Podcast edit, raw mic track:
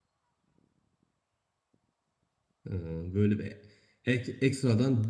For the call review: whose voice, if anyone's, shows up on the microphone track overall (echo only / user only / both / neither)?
user only